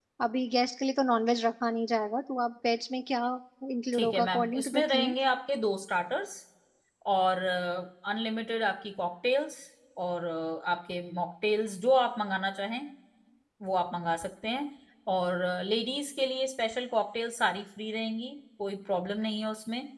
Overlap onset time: 3.9 s

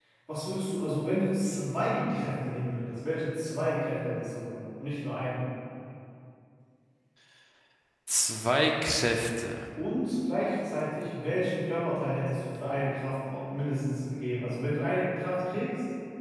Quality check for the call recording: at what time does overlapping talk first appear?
none

